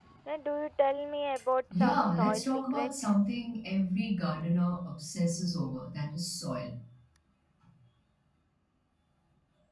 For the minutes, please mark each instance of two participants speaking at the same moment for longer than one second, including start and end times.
1.7-3.1

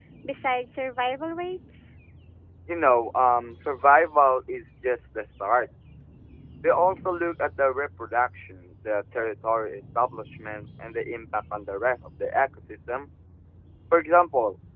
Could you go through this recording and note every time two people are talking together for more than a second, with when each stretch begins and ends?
none

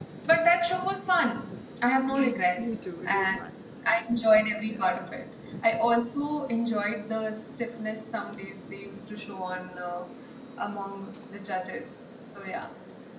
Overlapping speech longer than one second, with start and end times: 2.1-3.4

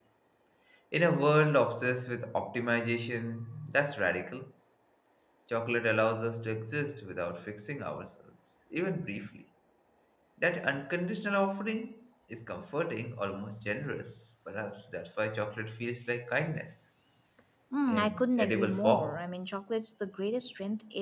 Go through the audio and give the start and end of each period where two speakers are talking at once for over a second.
17.9-19.2

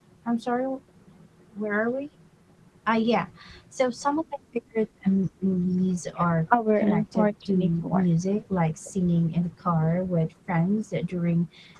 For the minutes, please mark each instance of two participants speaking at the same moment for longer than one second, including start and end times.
6.8-8.0

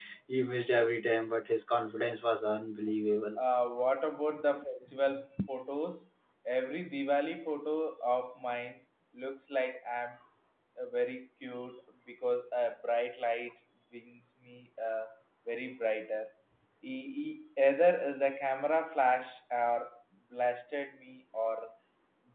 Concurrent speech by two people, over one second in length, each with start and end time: none

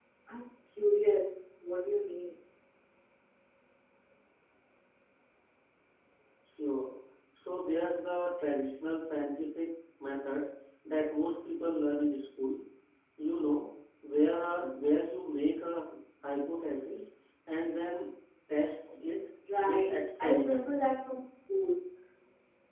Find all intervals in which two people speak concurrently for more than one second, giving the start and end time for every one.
19.6-20.8

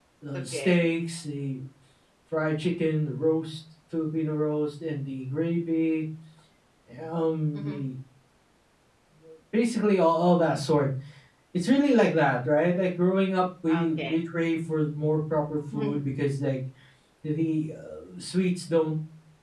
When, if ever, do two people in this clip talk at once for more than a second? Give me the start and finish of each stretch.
none

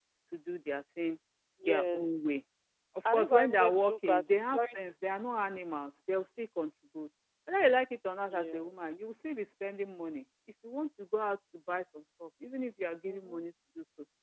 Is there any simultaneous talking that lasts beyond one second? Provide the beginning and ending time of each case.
3.0-4.7

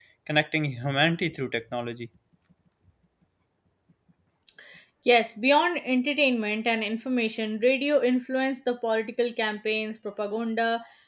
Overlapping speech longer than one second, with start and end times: none

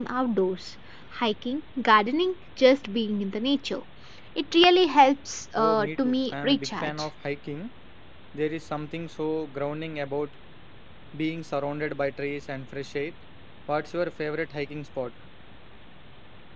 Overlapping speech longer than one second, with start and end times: 5.6-7.1

